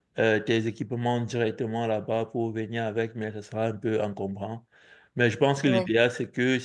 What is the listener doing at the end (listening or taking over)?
listening